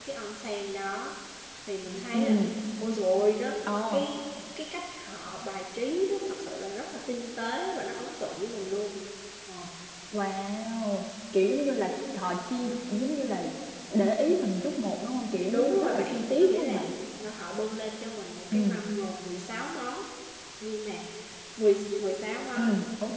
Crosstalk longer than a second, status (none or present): present